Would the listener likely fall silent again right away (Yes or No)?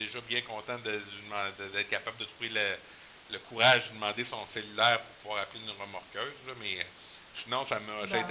Yes